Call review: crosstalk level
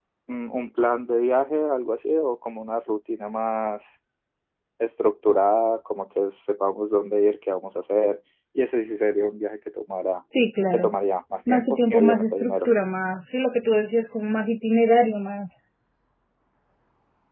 present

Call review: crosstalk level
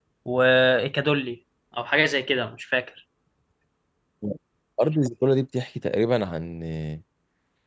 none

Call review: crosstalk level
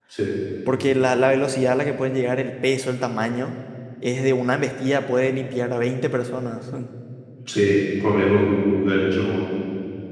none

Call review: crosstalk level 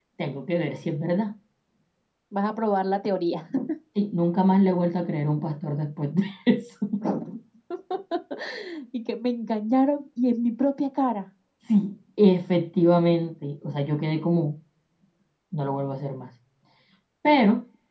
none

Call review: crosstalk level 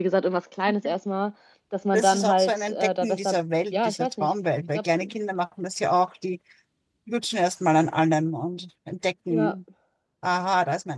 present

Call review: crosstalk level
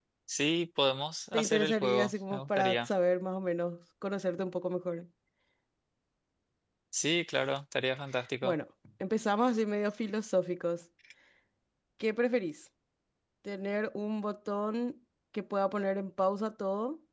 present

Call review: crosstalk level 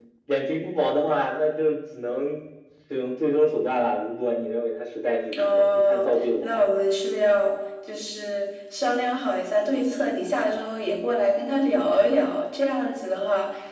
present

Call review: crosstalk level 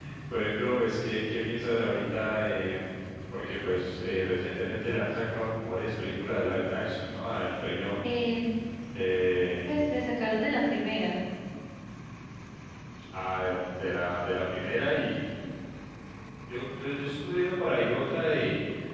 none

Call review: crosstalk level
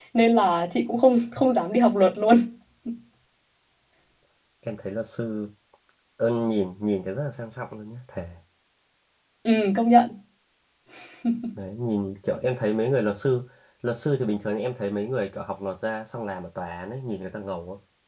none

